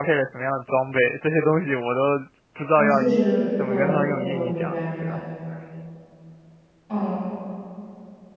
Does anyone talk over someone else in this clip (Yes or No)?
Yes